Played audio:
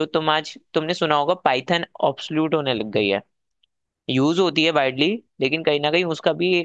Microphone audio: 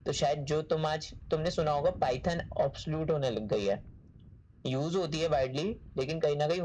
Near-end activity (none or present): none